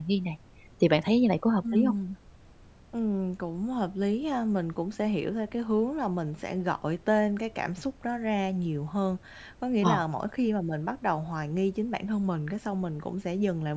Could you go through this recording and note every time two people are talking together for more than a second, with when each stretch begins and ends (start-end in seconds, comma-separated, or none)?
none